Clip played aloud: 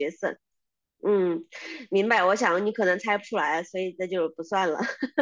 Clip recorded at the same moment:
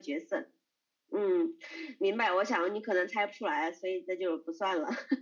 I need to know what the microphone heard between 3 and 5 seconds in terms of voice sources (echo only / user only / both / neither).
echo only